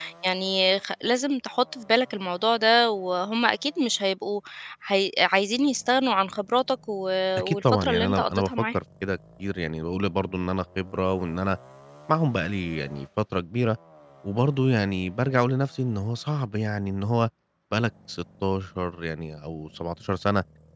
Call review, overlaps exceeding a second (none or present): present